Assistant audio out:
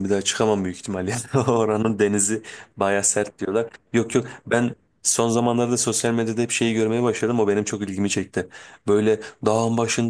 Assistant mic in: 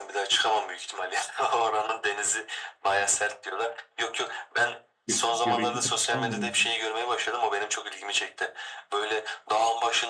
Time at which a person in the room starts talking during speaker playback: 5.1 s

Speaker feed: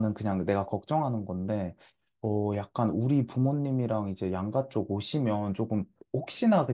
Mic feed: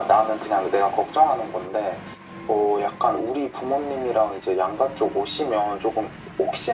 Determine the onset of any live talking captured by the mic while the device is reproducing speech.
none

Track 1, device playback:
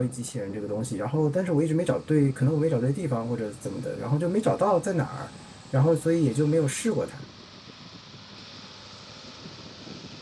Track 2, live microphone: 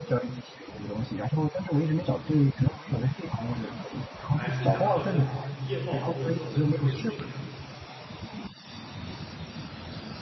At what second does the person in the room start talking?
4.3 s

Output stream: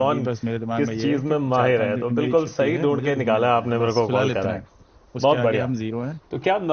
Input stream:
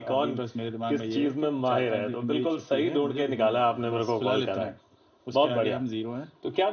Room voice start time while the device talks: none

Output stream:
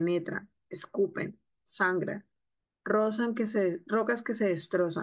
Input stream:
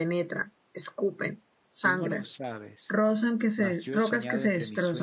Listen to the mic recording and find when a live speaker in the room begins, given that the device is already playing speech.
1.8 s

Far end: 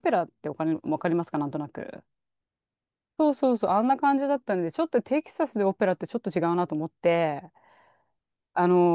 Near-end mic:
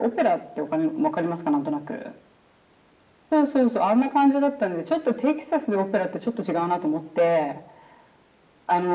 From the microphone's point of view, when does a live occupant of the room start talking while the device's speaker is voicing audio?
none

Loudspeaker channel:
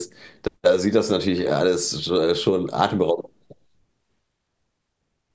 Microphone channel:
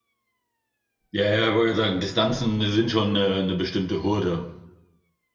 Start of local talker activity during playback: 1.1 s

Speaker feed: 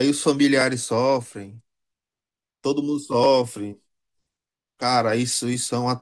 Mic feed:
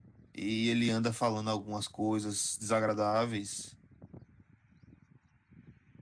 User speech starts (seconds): 0.3 s

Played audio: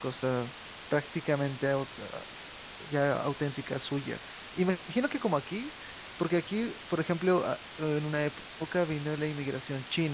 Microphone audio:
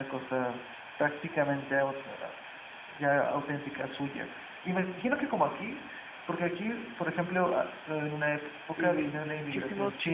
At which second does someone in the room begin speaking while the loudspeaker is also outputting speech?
8.7 s

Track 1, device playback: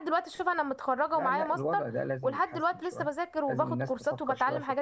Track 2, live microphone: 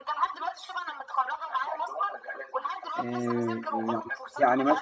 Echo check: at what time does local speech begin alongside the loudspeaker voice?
3.0 s

